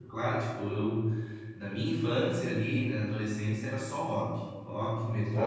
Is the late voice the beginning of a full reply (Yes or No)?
No